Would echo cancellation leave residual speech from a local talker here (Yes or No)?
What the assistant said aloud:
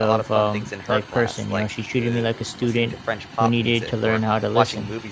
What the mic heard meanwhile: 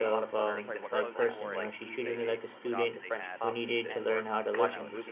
Yes